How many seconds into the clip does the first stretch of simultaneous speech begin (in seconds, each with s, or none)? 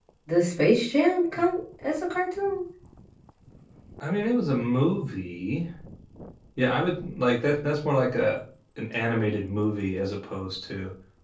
none